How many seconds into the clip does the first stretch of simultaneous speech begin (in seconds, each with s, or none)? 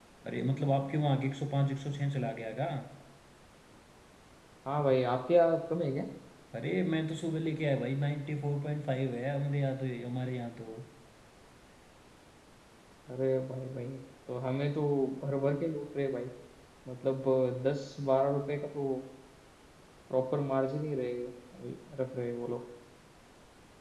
none